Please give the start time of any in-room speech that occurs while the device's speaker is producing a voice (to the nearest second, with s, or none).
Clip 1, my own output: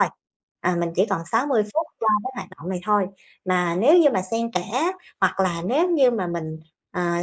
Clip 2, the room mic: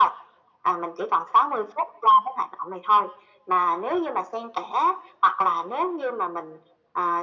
none